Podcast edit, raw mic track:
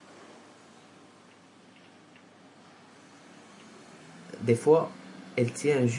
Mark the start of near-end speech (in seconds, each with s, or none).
4.4 s